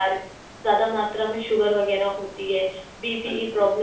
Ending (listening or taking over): listening